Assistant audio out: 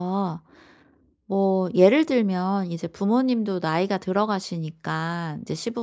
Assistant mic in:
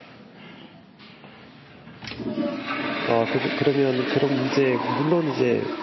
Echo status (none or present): none